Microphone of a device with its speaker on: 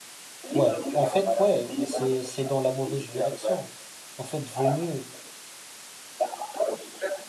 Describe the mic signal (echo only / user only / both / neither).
both